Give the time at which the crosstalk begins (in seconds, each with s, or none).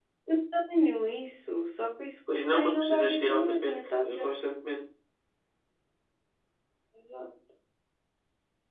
2.3 s